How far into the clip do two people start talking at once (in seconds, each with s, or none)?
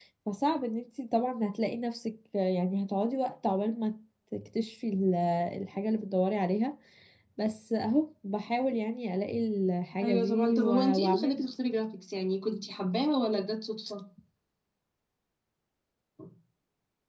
10.0 s